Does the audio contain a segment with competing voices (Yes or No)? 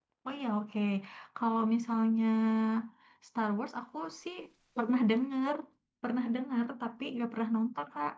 No